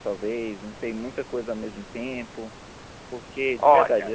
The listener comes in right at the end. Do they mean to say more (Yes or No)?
No